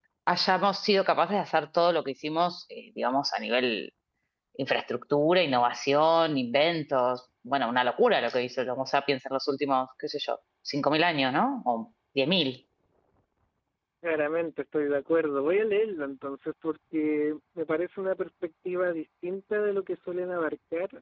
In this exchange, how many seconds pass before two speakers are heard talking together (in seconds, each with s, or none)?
none